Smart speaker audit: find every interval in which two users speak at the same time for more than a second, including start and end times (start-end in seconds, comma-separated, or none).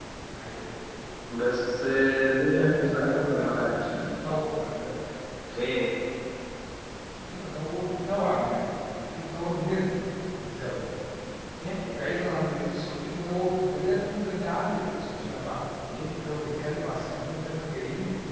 2.4-3.8